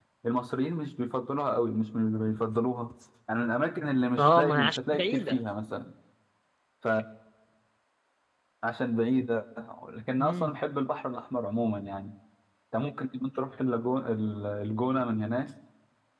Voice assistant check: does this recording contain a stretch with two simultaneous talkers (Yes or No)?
Yes